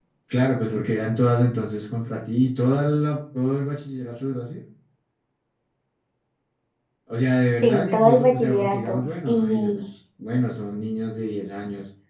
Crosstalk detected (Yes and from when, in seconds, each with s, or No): Yes, from 7.6 s